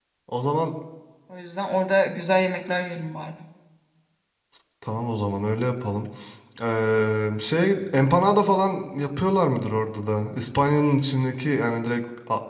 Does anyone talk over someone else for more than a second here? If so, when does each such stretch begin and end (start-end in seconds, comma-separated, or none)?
none